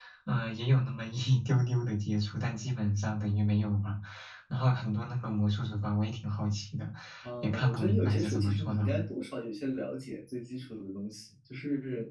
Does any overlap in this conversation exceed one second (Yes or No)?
Yes